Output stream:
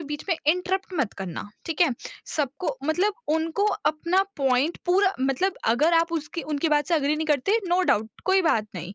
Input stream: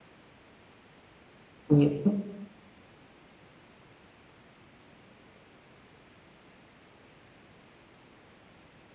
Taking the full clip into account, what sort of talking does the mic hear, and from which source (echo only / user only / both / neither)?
user only